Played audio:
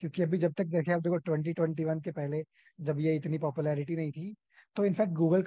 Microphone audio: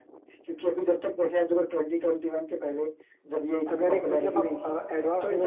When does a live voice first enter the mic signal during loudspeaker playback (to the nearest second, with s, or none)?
4 s